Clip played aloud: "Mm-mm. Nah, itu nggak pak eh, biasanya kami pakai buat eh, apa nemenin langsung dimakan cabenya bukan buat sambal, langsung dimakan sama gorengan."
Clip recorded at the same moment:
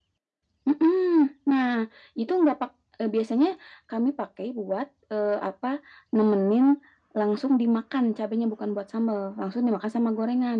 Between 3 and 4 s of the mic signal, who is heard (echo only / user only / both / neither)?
echo only